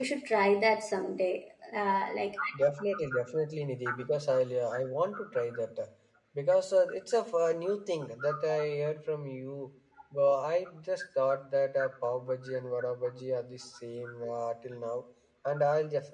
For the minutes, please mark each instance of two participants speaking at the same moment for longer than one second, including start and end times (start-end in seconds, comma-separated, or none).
none